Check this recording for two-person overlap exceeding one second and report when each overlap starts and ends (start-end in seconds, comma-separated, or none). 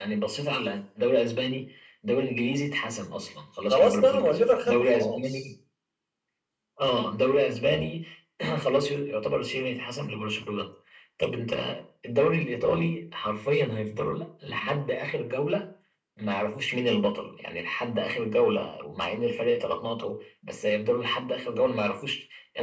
3.7-5.4